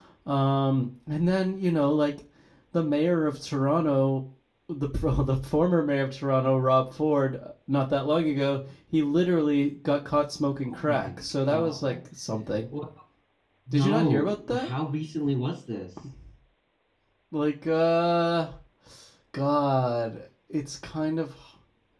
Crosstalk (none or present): present